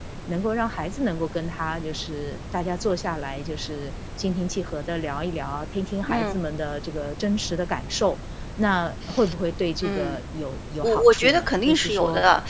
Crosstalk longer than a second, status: present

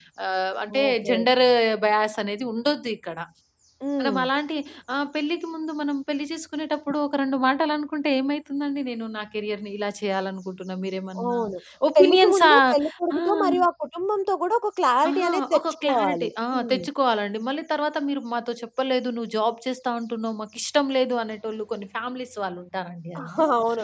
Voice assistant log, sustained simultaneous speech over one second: present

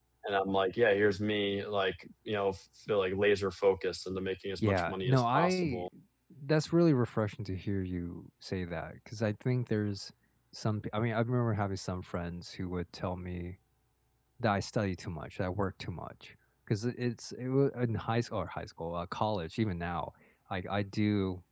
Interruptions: present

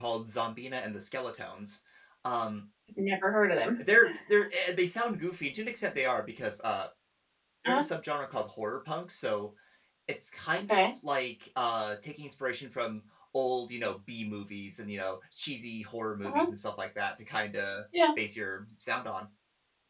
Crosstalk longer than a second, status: none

